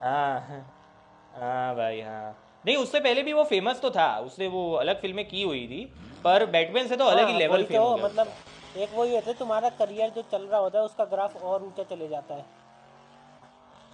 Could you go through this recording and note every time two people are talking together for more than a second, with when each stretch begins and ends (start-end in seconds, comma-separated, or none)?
7.1-8.3